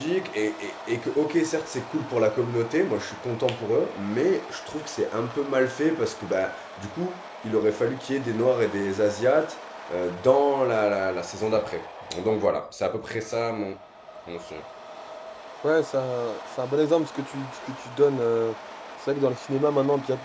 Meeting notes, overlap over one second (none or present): none